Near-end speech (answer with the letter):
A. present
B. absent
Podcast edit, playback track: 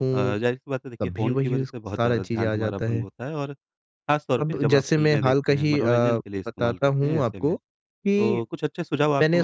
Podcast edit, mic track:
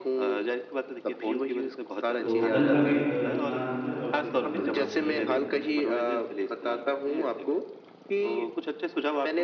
A